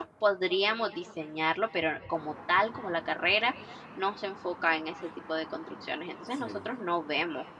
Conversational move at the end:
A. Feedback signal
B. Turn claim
A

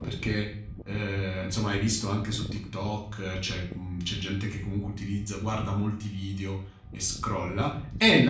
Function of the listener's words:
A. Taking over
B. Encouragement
B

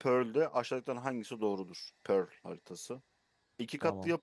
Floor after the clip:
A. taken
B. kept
B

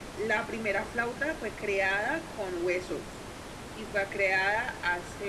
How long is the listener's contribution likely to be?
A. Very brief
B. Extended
A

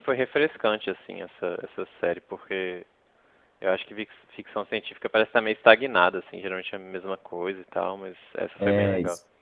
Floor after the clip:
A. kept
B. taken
B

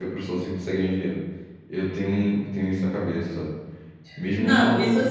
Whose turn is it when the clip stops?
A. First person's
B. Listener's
B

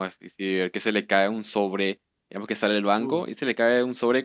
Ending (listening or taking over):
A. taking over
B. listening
B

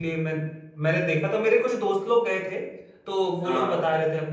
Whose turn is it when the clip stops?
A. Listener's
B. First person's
B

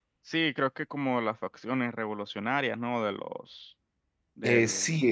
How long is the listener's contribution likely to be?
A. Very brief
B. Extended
B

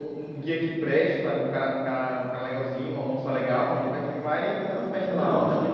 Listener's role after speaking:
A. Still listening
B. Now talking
B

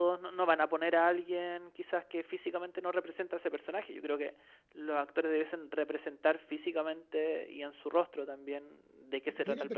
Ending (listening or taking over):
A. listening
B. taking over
B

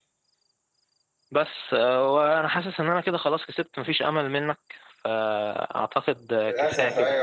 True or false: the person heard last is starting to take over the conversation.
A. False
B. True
B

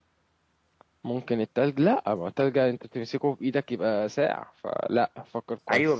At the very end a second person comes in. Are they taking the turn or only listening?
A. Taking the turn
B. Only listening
A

